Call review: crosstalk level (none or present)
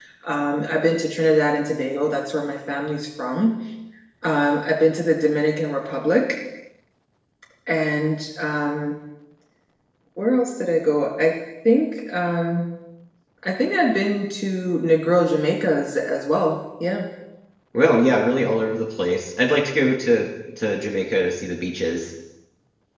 none